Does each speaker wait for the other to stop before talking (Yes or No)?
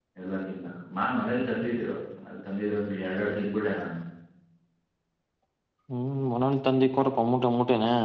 Yes